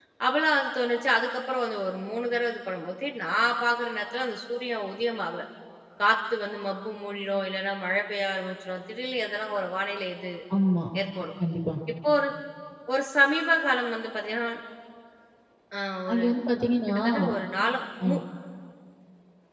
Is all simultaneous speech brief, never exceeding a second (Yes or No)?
Yes